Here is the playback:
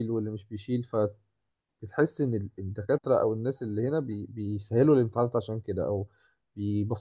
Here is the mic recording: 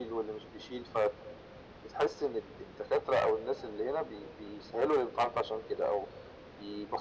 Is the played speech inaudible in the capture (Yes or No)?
No